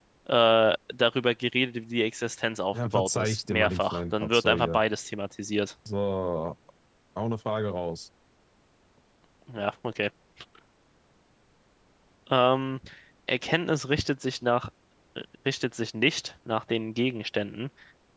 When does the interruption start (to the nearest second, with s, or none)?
3 s